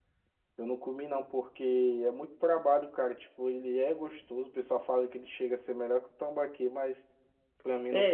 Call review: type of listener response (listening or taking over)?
taking over